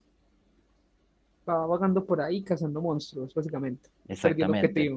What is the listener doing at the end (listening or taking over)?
taking over